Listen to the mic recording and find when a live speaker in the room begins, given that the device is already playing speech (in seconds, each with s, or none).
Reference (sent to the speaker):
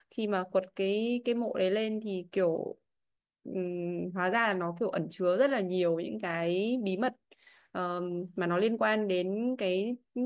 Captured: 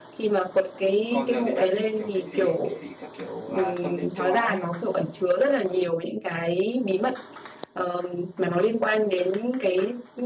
1.1 s